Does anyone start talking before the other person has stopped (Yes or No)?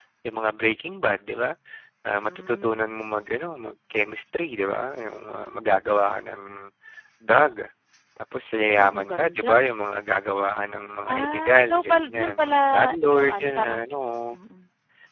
Yes